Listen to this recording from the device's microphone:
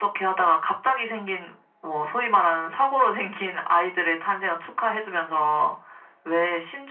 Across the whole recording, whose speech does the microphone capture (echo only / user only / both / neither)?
echo only